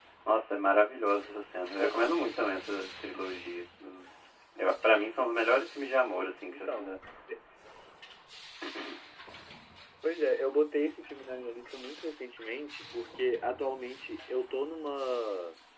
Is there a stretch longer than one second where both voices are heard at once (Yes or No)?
No